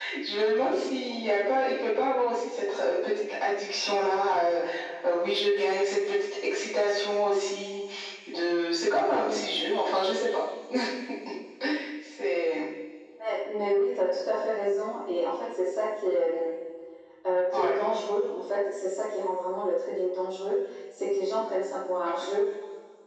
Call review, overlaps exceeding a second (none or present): none